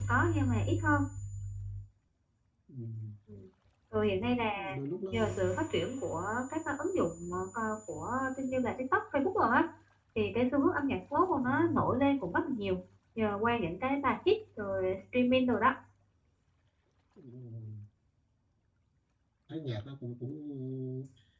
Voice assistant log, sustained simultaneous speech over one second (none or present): none